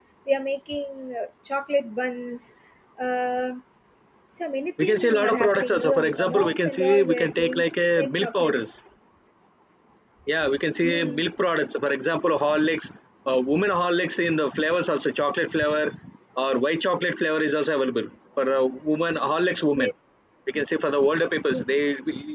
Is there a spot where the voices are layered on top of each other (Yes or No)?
Yes